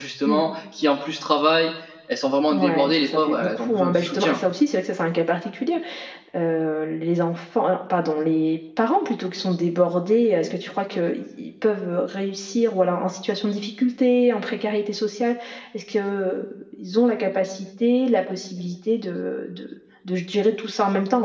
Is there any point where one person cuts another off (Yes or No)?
Yes